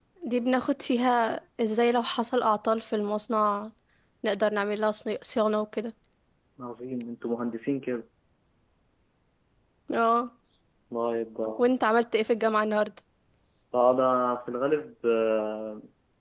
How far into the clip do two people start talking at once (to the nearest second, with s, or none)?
none